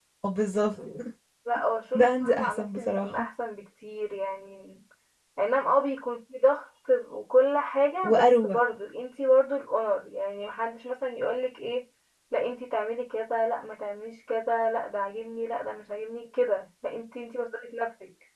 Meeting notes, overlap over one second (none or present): present